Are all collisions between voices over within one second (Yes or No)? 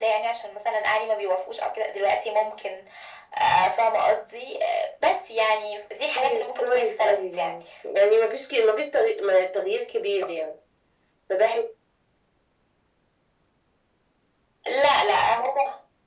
No